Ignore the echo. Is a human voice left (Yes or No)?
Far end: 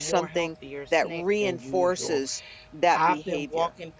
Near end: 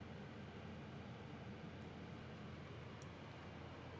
No